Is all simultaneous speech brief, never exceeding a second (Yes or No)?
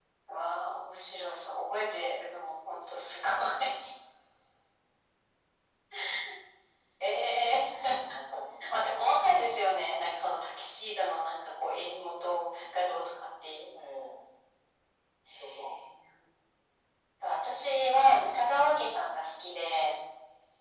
No